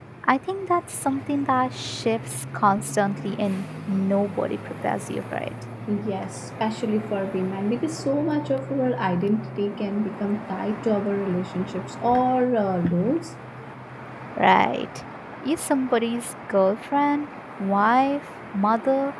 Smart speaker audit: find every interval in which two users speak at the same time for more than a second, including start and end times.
none

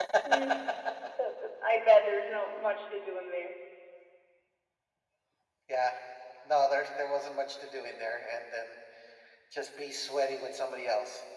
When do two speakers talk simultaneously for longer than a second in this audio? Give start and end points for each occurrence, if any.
none

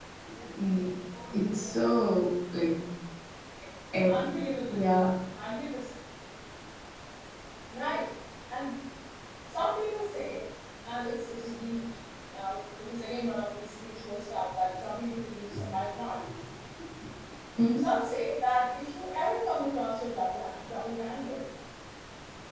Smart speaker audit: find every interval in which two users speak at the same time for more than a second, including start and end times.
none

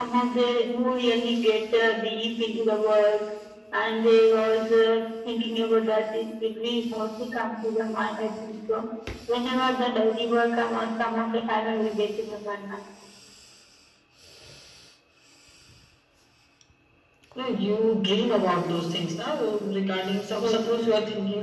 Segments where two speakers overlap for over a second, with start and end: none

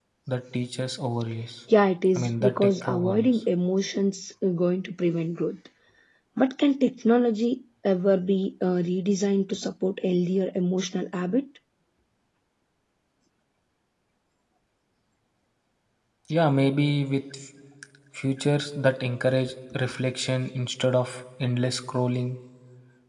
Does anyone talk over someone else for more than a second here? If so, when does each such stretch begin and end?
2.2-3.4

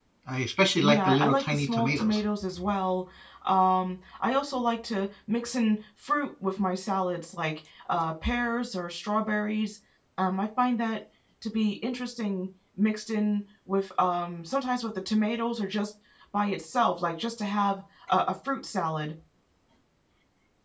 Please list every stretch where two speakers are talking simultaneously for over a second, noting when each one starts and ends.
0.8-2.2

